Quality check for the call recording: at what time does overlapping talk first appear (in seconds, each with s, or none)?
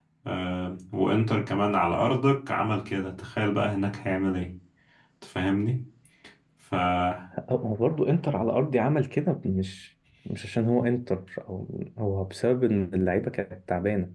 none